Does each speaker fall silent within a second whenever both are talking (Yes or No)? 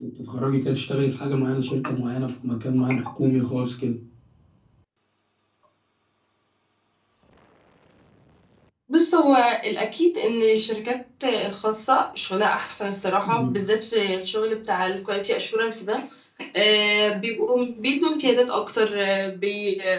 Yes